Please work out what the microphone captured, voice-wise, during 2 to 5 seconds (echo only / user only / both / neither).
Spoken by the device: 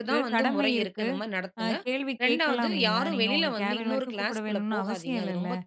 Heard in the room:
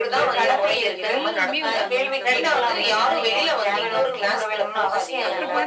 both